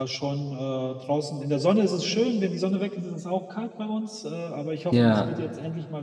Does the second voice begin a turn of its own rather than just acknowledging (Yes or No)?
No